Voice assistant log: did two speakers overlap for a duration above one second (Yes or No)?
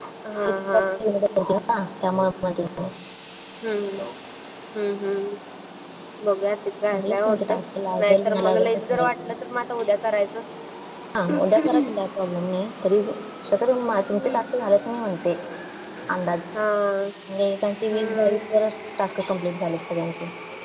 Yes